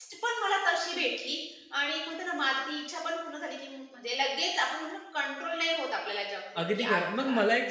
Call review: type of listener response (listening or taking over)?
taking over